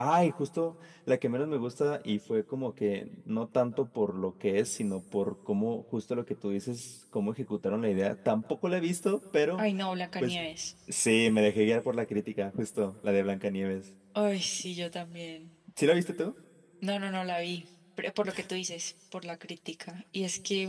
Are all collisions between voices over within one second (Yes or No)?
Yes